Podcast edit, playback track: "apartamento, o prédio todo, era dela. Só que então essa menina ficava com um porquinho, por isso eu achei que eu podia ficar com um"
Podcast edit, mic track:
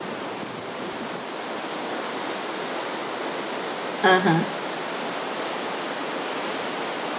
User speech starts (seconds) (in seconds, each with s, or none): 4.0 s